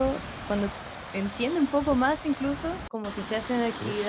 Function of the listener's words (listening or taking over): listening